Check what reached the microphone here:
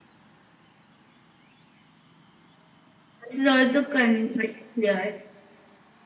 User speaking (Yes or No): Yes